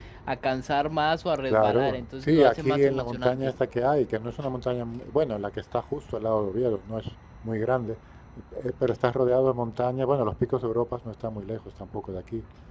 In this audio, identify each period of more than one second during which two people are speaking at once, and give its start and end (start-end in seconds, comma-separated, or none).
1.5-3.5